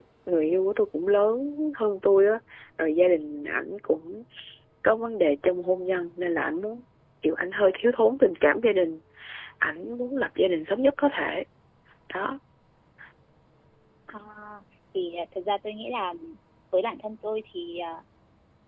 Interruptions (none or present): none